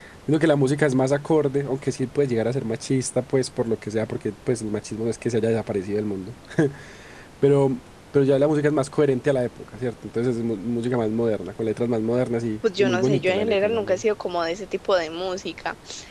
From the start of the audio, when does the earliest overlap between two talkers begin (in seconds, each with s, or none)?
12.6 s